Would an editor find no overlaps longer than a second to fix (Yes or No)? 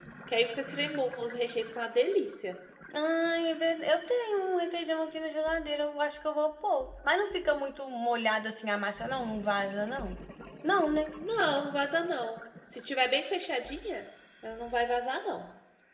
Yes